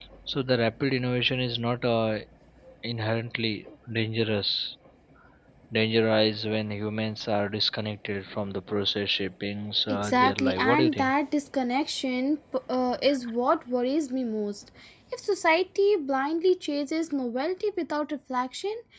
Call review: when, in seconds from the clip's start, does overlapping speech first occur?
9.9 s

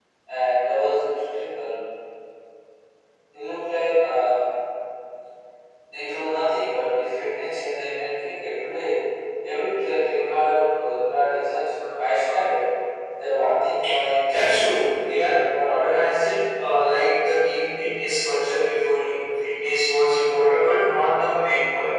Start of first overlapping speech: 14.3 s

